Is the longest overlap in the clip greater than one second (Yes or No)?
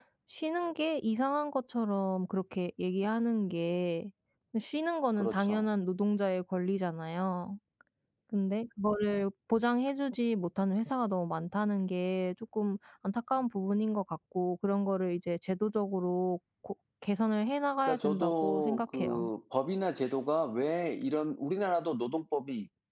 Yes